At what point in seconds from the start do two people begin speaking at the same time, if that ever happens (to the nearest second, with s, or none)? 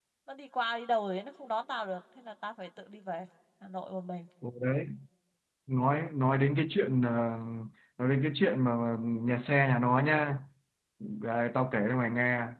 none